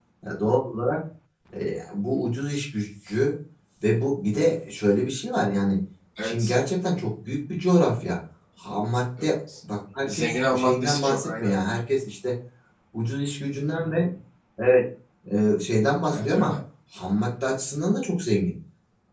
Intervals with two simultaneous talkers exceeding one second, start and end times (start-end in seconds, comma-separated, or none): 10.0-11.5